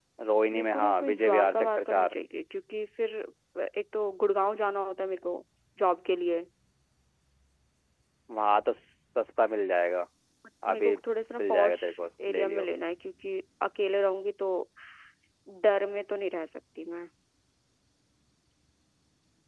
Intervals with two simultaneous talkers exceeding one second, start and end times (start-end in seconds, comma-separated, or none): 0.5-2.2